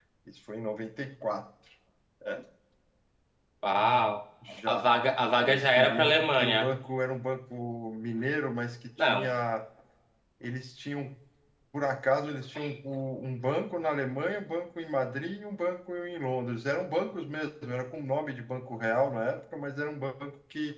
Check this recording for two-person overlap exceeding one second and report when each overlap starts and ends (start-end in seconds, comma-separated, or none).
5.4-6.7